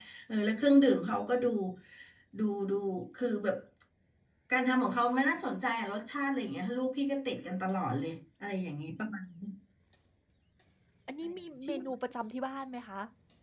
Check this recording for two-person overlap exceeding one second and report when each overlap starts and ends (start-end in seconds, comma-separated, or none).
none